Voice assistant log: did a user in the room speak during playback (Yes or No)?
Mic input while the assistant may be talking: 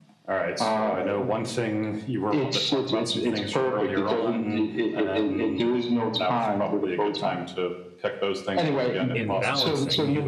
Yes